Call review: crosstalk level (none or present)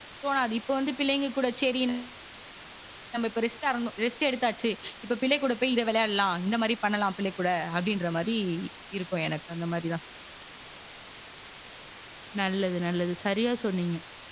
none